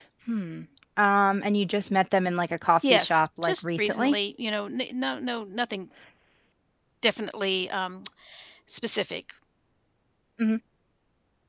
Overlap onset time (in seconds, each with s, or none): 2.8 s